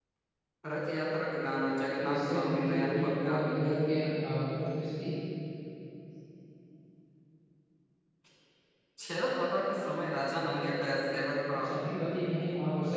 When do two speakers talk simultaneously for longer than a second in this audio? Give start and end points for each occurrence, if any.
2.1-3.6

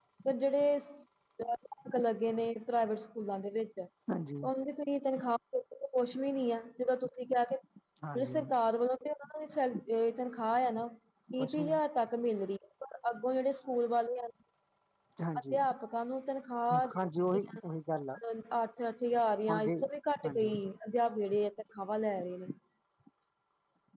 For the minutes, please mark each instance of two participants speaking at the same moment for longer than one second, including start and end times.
none

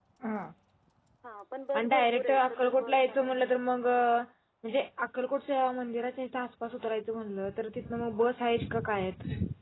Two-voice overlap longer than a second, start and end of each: 1.7-3.3

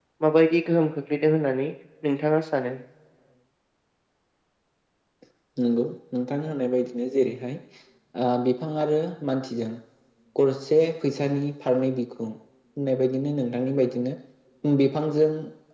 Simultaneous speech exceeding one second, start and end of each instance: none

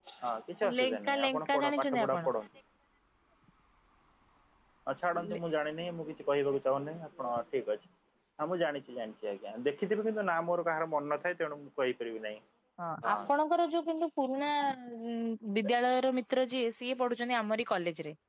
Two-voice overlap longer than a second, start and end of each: 0.8-2.2

